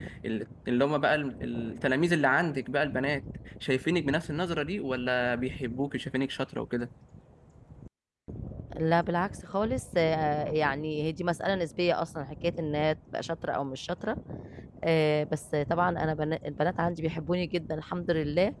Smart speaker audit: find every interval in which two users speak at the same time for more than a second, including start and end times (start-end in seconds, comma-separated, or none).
none